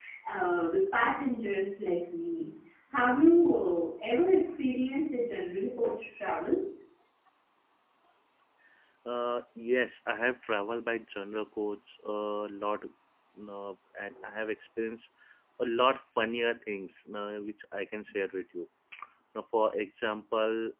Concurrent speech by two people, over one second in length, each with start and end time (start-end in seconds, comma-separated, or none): none